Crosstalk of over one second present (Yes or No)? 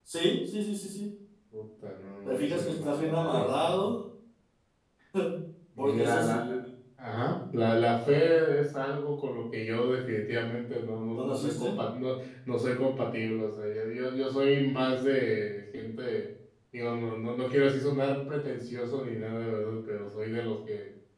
Yes